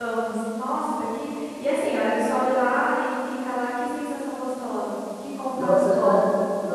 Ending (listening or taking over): taking over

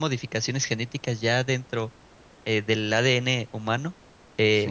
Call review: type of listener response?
listening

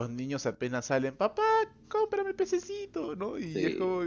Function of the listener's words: listening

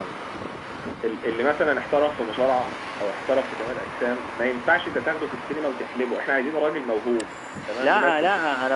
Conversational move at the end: taking over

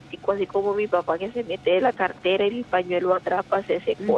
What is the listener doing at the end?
taking over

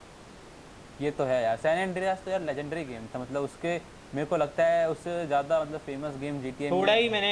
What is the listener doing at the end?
taking over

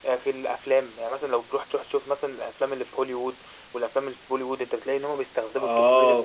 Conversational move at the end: taking over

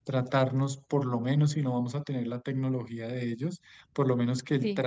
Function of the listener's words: listening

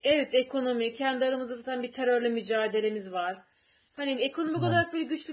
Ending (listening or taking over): listening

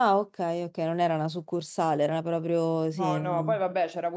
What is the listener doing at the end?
taking over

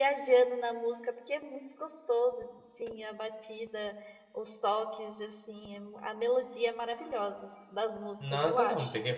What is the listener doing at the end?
taking over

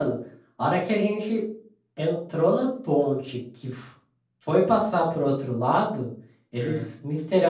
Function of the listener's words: listening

